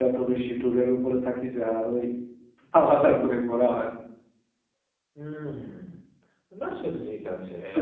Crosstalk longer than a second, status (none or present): none